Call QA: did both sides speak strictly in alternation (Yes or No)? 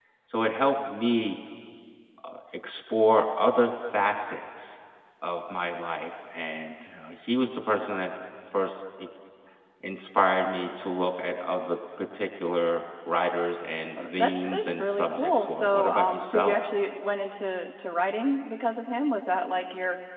No